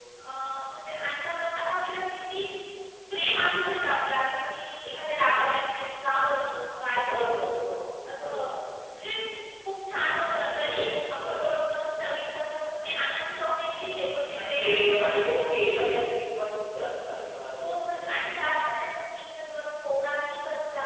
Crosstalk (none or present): present